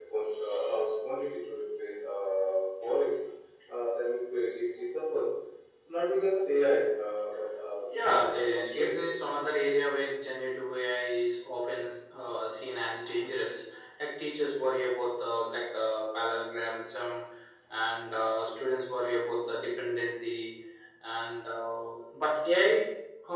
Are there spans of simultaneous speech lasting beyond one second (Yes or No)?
Yes